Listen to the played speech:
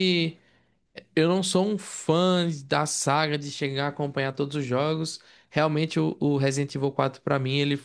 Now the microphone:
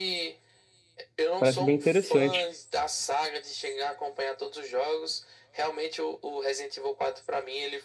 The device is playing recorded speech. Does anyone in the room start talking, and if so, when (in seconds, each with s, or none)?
1.4 s